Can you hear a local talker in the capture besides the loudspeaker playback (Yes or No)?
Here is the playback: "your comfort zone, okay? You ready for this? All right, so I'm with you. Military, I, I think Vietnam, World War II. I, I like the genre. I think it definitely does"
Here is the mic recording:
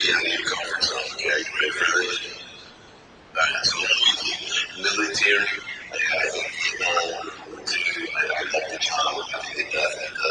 No